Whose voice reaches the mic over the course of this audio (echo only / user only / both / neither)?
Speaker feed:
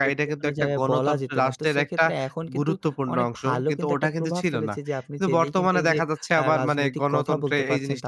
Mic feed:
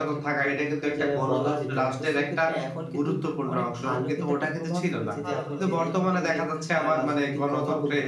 both